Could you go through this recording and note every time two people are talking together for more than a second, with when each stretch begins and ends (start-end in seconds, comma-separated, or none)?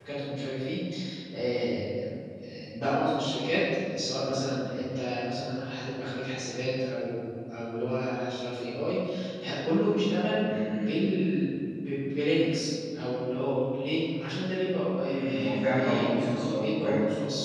15.4-16.7